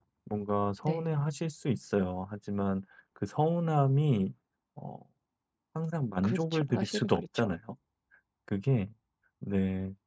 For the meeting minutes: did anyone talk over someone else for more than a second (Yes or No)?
Yes